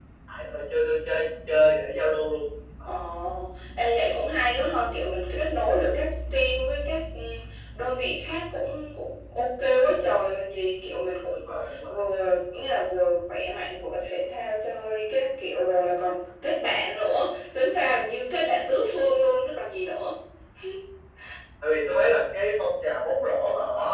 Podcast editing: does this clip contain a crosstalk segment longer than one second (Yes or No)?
No